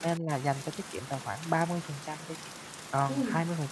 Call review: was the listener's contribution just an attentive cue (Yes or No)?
Yes